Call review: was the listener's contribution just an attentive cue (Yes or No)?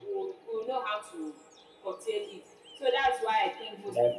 Yes